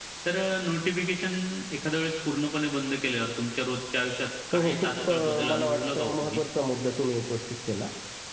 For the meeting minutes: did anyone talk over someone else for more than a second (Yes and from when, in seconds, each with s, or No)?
Yes, from 4.5 s